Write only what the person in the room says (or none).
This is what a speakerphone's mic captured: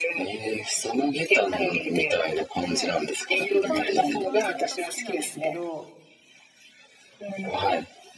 で、私基本的に豚汁が好きなんですけど、